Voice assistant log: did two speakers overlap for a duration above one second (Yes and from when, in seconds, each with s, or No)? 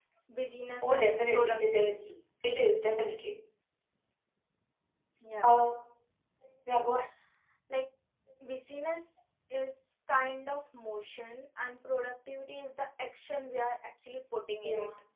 Yes, from 0.8 s